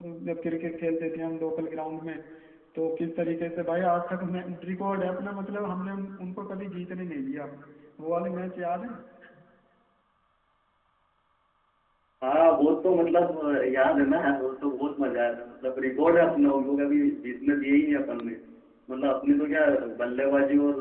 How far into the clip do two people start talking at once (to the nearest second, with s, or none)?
none